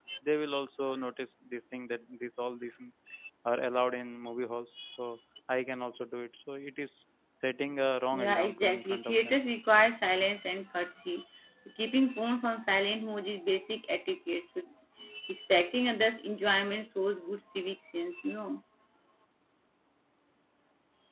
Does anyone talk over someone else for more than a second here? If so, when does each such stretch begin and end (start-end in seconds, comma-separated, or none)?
8.1-9.4